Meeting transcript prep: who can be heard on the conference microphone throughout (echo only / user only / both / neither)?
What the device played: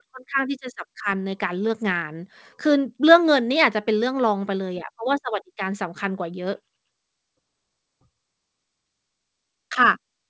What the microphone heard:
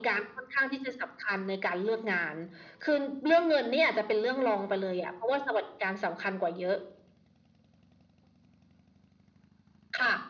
echo only